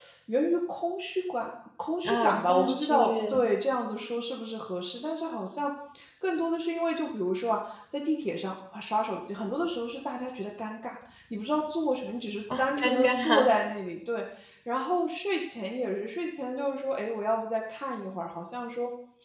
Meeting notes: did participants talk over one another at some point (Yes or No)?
Yes